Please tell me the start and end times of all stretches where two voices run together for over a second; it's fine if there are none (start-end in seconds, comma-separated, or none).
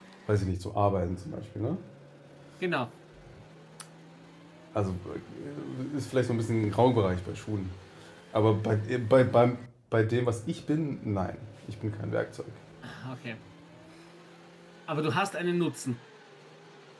none